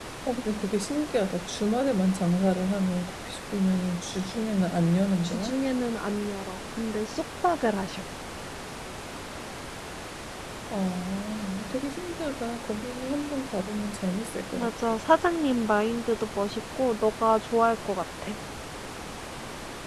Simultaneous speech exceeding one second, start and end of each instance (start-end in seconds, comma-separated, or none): none